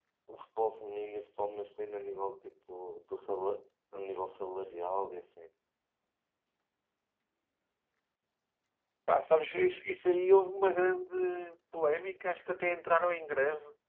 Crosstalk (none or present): none